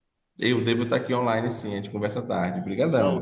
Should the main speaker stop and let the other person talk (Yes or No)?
Yes